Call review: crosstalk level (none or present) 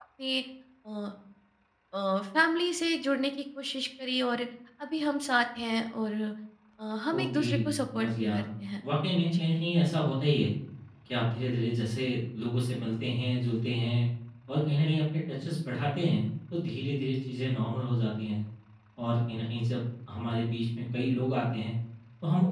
present